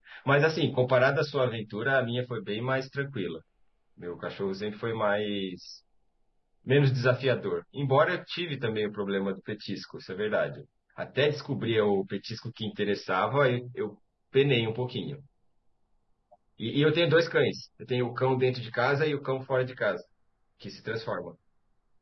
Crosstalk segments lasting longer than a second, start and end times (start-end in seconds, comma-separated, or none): none